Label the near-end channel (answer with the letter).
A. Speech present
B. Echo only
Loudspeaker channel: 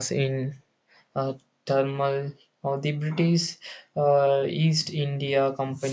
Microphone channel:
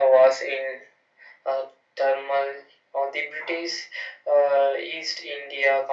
B